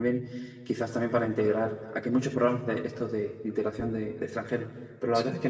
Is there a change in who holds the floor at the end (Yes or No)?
No